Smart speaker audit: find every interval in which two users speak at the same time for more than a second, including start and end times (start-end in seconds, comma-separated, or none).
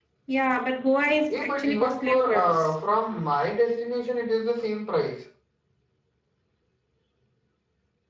1.3-2.7